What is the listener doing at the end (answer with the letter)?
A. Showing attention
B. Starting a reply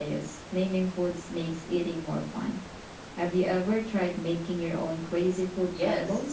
B